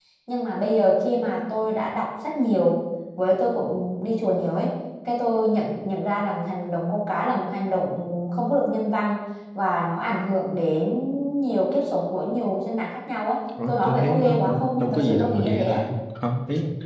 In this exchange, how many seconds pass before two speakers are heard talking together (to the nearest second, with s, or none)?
14 s